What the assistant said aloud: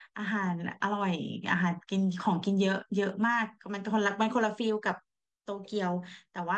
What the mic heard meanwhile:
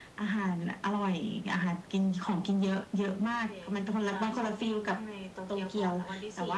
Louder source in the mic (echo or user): echo